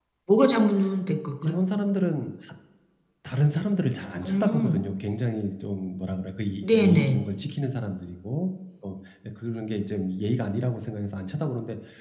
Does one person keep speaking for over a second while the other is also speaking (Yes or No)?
No